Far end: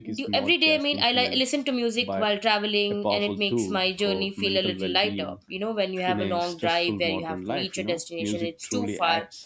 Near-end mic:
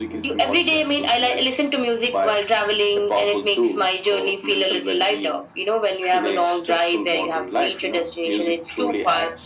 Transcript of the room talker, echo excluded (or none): none